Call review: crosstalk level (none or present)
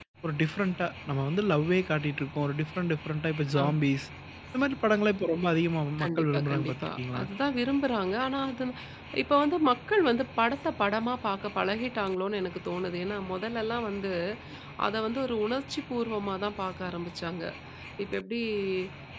present